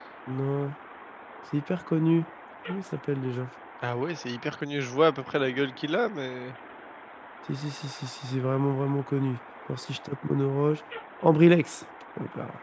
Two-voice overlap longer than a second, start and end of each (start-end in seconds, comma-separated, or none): none